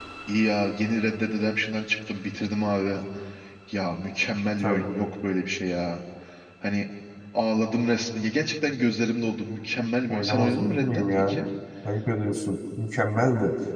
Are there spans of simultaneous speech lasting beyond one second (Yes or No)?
Yes